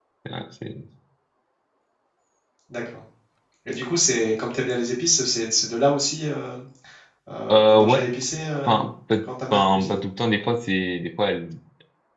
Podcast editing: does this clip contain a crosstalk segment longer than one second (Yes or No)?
No